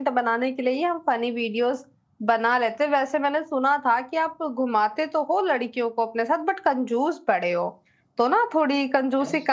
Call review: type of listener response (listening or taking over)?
listening